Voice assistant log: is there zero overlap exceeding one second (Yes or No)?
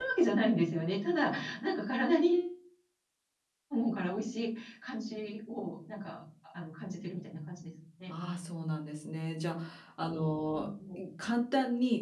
Yes